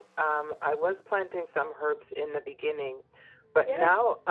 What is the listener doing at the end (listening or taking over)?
listening